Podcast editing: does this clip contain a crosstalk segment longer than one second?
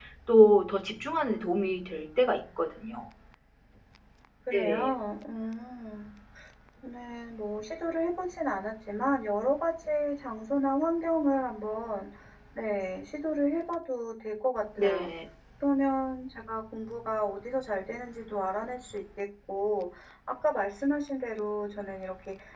No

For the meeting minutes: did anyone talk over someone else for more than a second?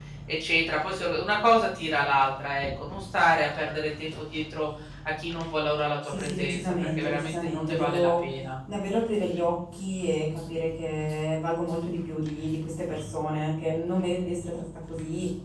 Yes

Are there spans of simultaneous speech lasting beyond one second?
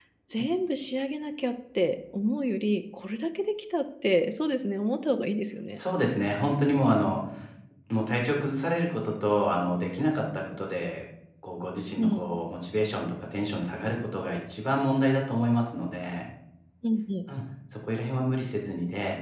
No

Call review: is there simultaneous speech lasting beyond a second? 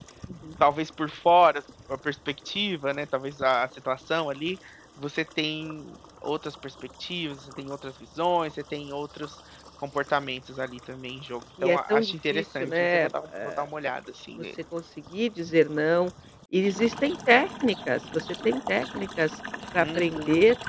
Yes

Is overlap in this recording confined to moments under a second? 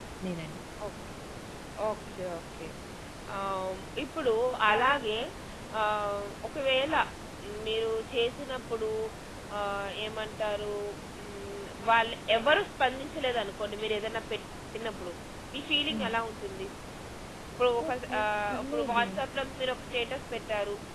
No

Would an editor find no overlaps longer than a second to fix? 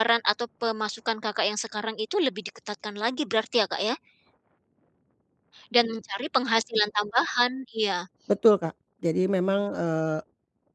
Yes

